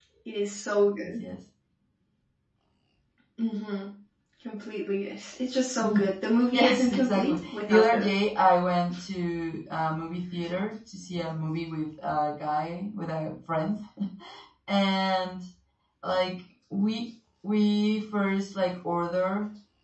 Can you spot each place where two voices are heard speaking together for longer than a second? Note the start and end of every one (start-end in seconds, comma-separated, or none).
6.5-8.1